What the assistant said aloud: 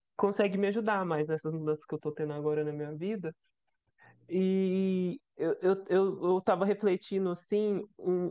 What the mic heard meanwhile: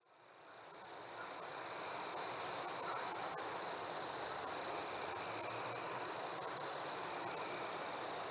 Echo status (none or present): none